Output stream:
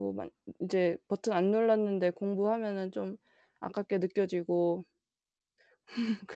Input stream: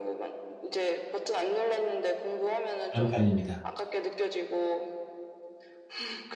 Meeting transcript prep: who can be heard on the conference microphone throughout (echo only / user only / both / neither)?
both